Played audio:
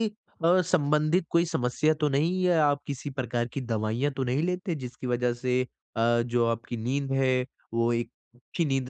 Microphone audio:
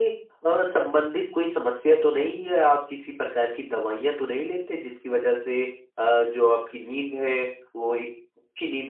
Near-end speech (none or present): none